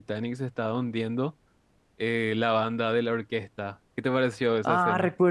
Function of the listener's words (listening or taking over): taking over